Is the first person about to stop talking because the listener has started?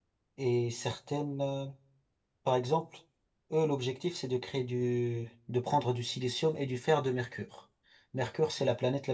No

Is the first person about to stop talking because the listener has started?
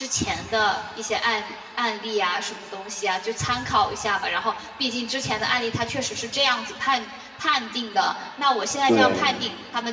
No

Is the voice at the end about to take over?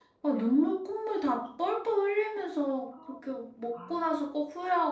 No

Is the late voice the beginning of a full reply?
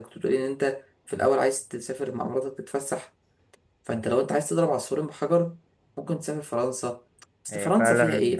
No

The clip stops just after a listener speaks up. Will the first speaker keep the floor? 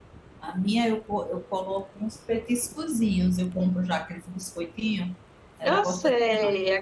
No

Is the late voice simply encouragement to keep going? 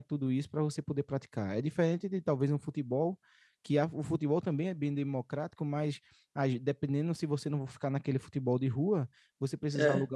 Yes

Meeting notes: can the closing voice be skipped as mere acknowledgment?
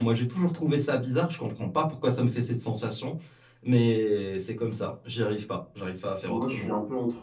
No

